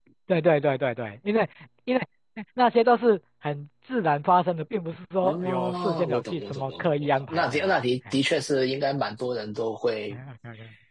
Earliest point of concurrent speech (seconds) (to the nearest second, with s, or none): 5 s